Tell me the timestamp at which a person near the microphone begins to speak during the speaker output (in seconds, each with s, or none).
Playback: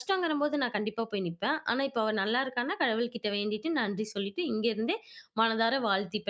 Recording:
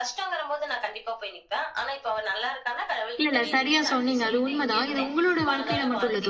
3.2 s